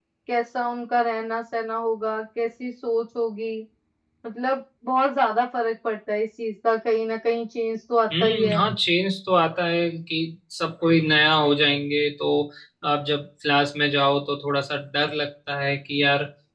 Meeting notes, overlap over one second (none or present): none